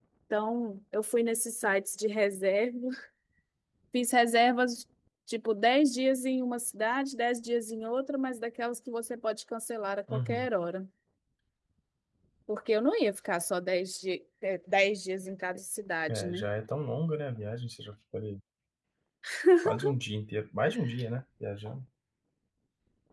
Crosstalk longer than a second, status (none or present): none